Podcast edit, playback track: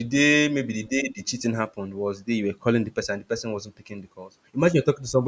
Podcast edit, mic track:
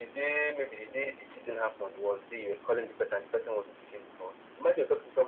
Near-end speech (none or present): none